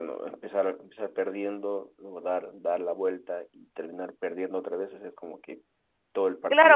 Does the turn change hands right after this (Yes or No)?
Yes